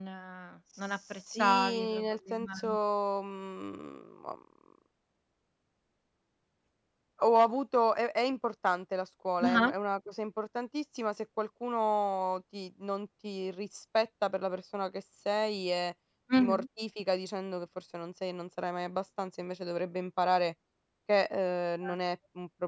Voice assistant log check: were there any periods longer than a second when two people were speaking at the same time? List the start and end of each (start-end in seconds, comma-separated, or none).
1.4-2.7